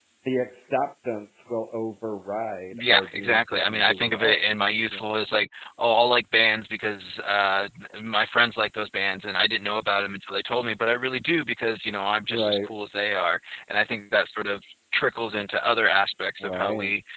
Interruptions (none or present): present